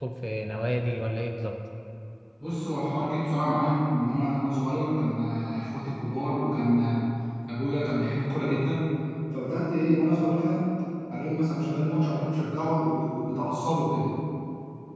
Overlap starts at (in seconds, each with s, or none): none